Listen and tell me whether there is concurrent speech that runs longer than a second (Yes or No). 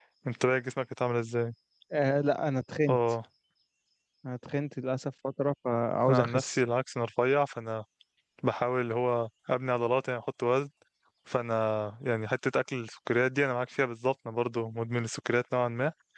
No